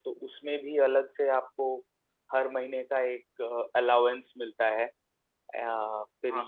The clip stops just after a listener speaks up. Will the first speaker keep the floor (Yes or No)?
No